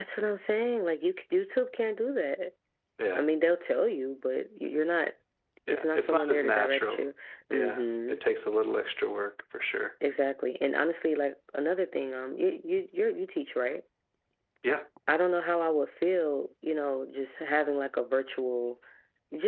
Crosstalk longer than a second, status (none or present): present